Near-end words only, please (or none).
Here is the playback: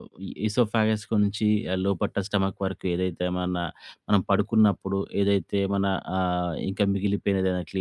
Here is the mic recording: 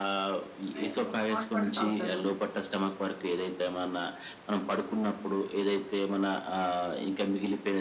ప్రే మో హాట్ వాటర్ తాగుతారు.